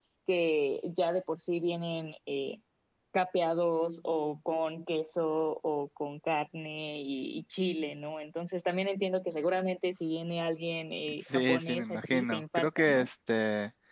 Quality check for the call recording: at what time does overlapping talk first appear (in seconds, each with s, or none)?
11.2 s